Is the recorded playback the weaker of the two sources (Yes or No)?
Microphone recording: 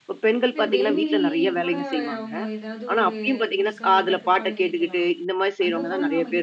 No